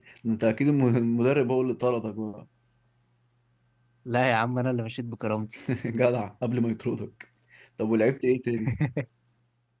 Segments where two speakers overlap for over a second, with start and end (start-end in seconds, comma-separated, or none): none